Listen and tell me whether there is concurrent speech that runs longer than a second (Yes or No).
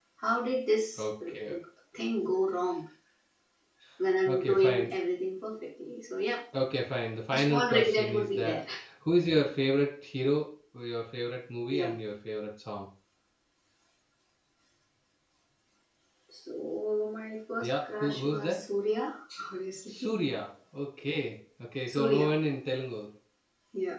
Yes